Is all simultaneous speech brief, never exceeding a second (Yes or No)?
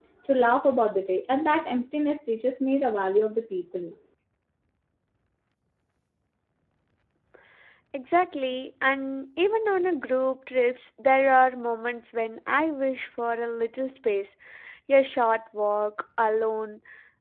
Yes